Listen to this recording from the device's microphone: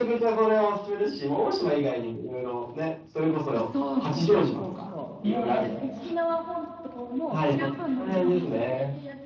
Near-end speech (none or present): present